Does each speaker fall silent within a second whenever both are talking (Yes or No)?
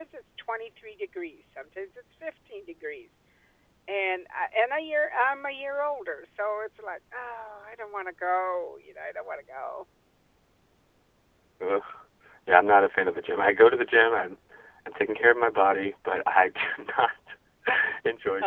Yes